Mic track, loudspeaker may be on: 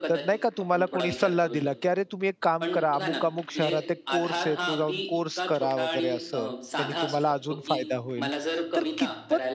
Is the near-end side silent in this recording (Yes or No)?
No